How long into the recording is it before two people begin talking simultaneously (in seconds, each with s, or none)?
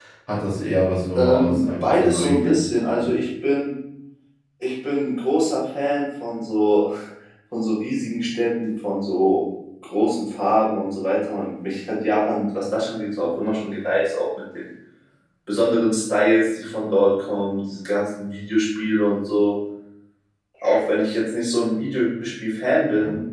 1.1 s